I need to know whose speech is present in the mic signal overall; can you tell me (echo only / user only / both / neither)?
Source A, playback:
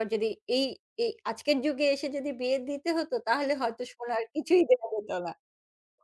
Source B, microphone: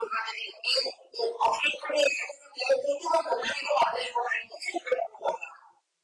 echo only